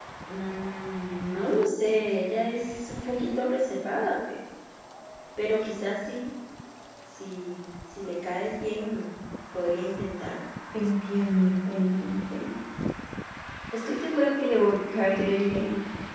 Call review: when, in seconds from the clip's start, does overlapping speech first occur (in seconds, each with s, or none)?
none